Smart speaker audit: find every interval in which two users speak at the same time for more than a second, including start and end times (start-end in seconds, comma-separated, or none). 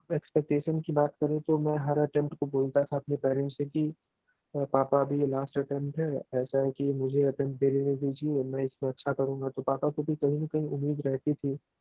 none